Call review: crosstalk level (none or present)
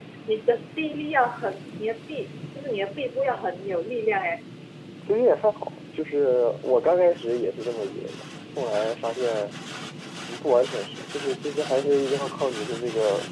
none